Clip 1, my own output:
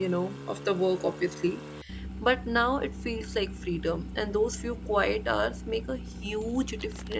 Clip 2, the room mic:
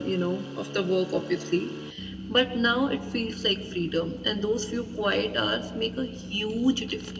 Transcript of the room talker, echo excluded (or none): none